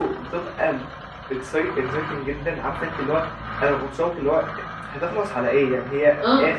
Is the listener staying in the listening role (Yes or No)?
No